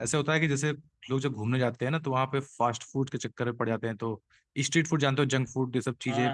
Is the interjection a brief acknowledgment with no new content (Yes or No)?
No